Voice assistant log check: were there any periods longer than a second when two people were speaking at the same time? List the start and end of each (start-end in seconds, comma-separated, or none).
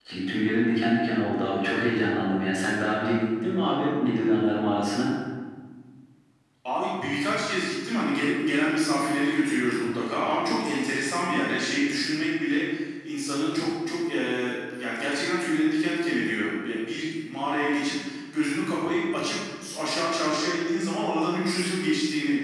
none